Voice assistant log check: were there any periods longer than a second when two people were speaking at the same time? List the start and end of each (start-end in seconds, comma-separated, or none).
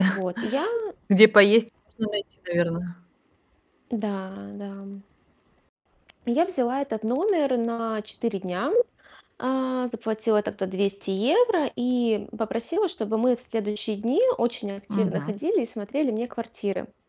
none